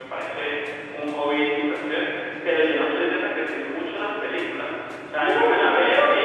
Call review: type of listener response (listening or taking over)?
listening